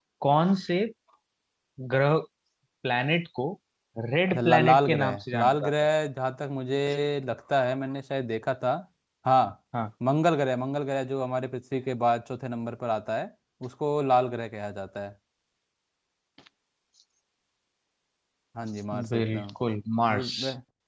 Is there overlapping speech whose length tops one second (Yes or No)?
Yes